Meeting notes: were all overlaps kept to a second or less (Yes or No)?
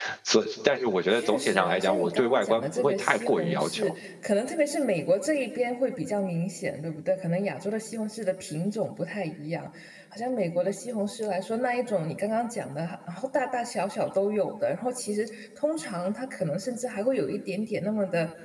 No